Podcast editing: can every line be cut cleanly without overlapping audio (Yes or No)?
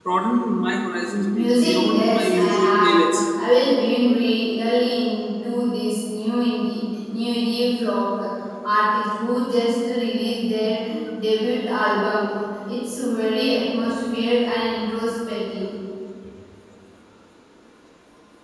No